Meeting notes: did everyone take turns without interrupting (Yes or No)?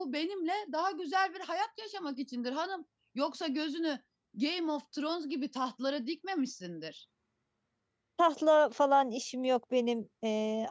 Yes